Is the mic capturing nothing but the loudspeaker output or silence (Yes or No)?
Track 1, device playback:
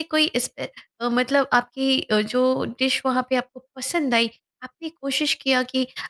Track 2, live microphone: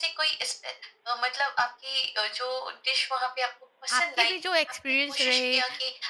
No